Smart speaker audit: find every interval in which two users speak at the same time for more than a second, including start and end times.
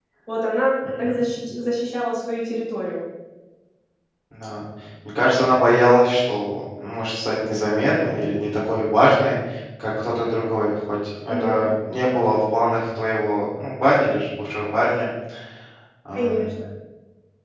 none

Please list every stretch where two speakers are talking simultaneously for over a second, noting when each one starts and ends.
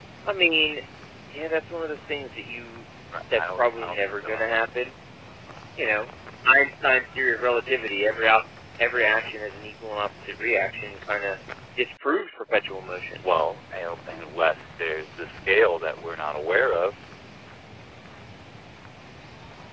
3.3-4.6

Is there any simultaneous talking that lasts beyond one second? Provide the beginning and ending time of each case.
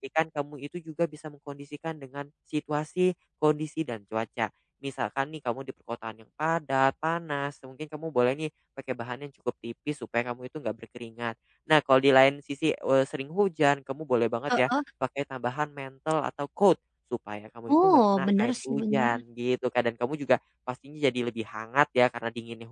17.8-19.1

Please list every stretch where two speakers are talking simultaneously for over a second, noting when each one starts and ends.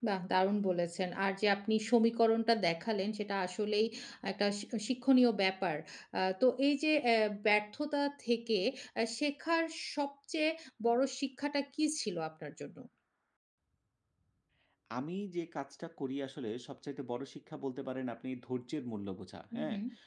none

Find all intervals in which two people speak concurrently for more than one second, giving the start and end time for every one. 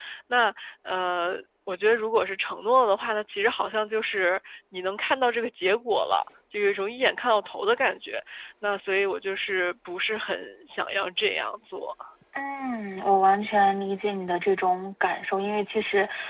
none

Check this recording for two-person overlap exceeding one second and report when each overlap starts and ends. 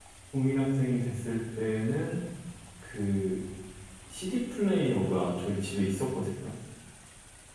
none

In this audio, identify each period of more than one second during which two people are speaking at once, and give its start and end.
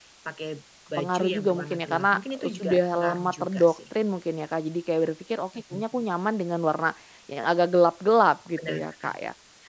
1.0-3.8

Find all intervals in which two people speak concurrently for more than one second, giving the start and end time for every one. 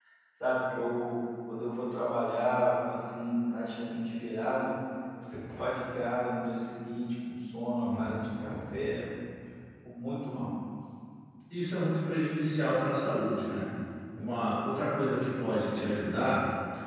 none

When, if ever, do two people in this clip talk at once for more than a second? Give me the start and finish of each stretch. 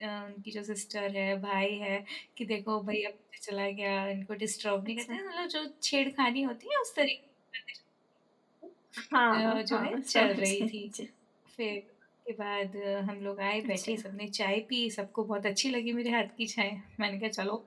9.3-10.9

